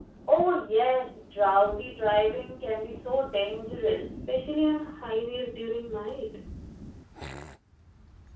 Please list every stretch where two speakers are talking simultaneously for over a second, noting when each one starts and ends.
none

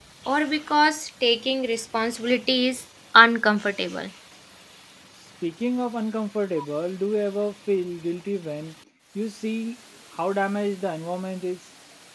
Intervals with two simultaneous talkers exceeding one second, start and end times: none

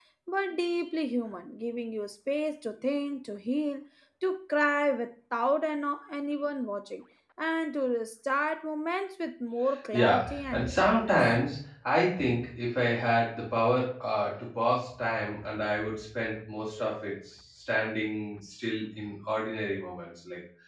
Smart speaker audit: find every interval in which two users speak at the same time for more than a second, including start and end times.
9.9-11.2

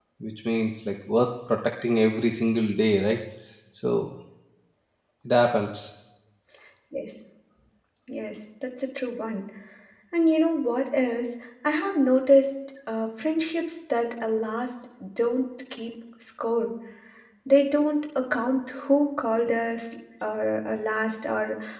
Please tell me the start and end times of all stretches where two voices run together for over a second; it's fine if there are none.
none

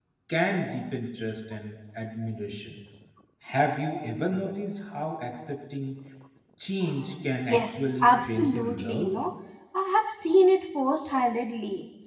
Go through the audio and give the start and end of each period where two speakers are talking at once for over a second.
7.5-9.2

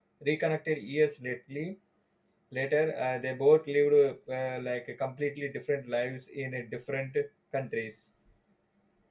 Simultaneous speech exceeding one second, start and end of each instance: none

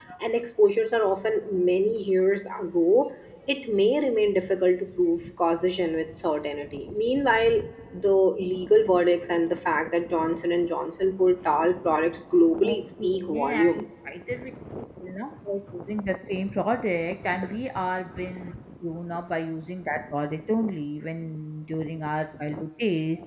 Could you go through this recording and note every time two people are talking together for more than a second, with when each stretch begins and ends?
12.6-13.8

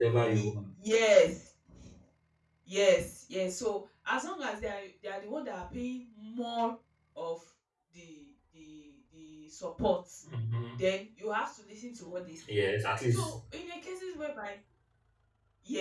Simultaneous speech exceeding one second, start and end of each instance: none

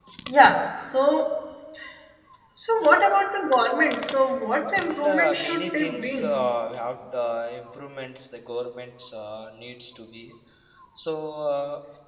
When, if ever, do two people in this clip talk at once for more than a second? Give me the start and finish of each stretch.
4.8-6.4

